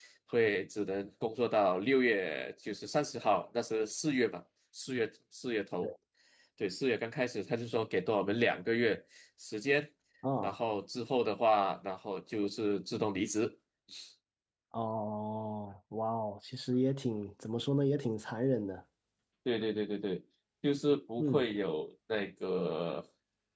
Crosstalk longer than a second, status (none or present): none